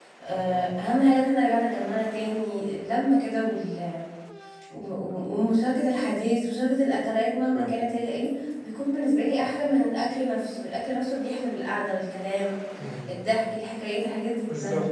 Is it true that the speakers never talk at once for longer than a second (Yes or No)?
Yes